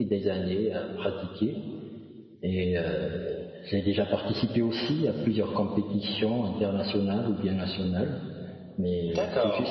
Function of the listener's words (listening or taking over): listening